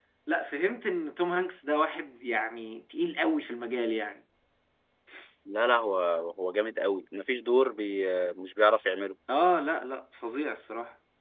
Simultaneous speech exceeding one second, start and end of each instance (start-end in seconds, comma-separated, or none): none